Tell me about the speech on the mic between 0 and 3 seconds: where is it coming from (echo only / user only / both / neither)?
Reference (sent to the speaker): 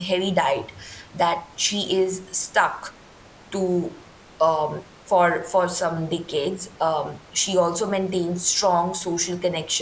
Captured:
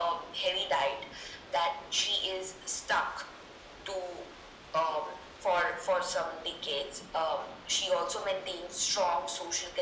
echo only